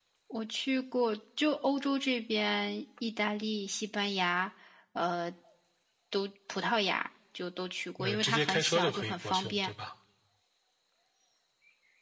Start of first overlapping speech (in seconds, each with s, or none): 8.0 s